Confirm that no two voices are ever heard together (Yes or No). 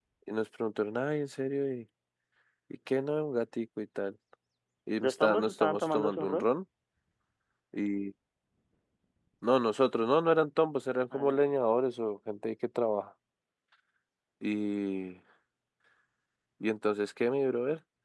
No